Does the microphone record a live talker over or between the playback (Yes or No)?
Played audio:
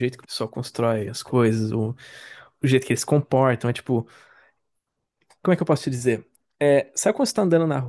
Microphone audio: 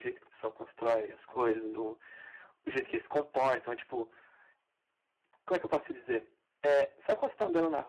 No